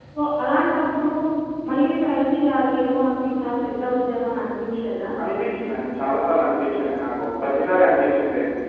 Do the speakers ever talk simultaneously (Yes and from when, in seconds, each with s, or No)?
No